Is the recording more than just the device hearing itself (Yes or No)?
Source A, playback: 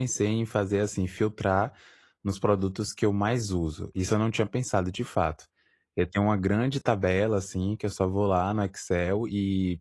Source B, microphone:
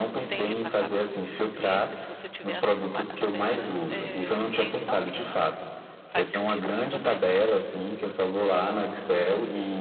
Yes